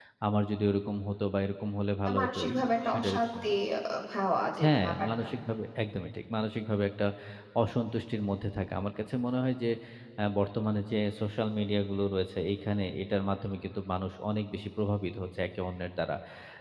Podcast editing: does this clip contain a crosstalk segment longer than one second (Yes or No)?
Yes